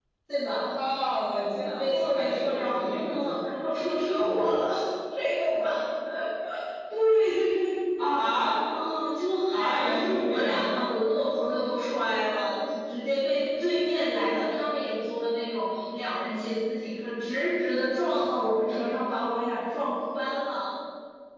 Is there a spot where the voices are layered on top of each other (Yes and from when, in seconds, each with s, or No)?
Yes, from 1.8 s